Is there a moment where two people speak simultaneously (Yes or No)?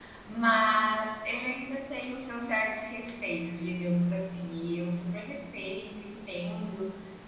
No